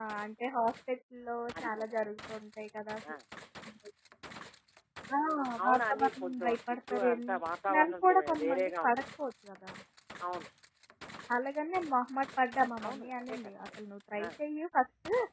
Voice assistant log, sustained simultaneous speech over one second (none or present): present